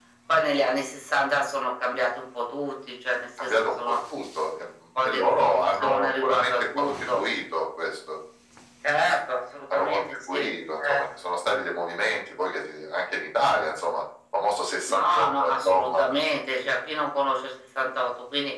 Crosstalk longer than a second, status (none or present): present